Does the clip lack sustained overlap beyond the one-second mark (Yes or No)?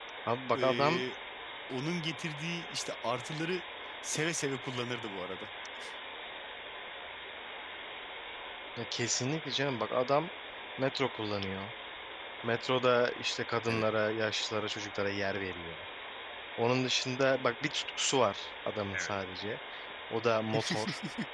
Yes